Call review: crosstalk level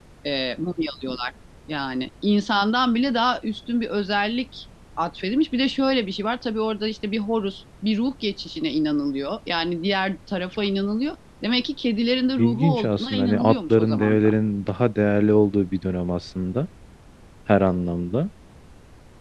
present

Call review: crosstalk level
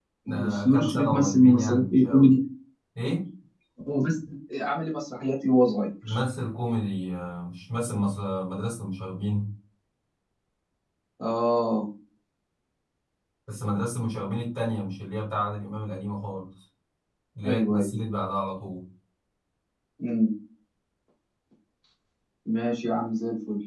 present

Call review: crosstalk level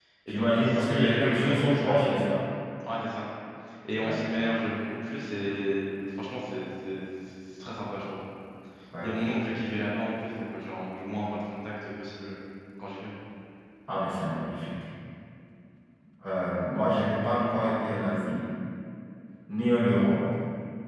present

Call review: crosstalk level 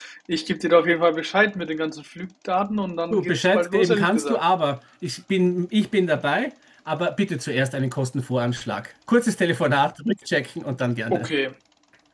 present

